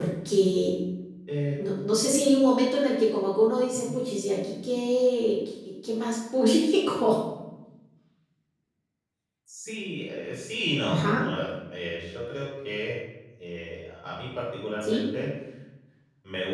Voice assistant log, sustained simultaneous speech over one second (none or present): none